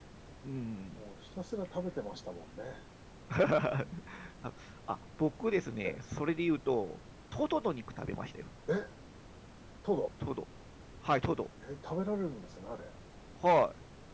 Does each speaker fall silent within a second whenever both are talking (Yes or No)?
Yes